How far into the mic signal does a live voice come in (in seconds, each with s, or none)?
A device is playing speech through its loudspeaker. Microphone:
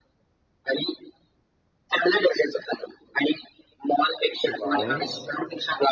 4.6 s